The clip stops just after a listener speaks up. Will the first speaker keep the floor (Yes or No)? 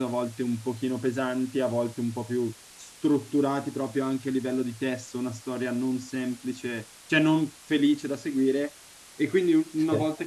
Yes